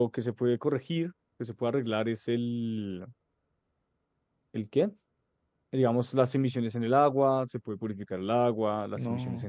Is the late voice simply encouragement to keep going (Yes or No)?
Yes